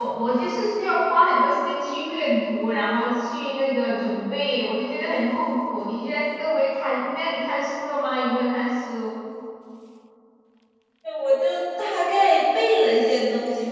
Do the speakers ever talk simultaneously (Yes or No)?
No